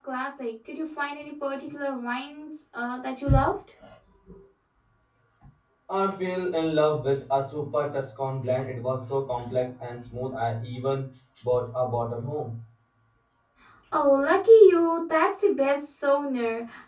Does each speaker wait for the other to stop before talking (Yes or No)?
Yes